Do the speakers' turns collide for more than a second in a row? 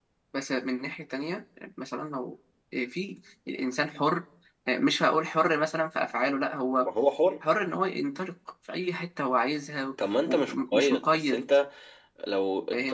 Yes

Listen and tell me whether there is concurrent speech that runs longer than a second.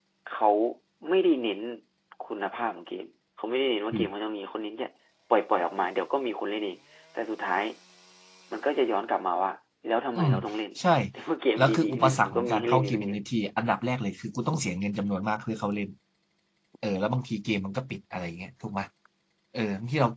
Yes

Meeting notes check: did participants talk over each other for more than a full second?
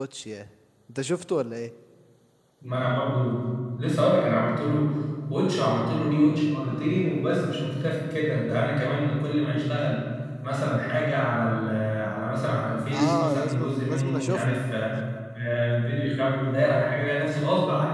Yes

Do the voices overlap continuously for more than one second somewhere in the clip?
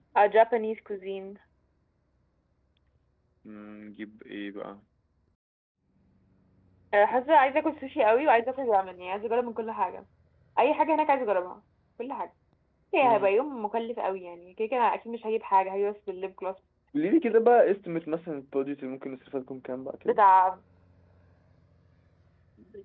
No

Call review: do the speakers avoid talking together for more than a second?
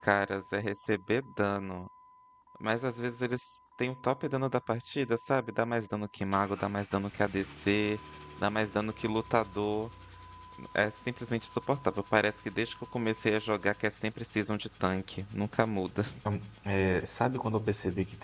Yes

